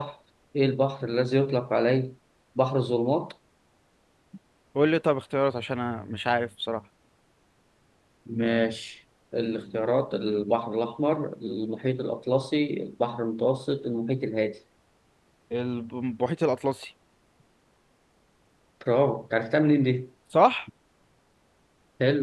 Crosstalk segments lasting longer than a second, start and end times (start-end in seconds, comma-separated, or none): none